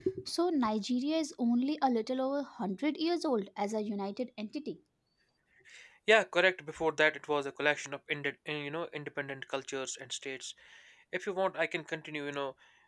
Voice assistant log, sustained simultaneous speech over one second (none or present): none